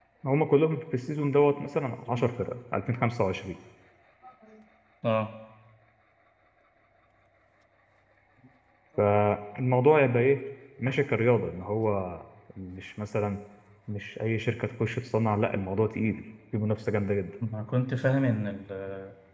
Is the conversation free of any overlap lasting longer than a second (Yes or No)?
Yes